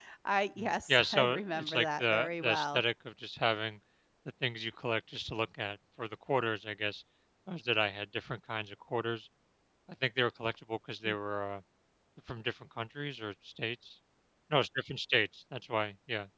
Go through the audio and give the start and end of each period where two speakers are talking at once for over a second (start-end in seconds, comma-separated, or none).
0.6-2.8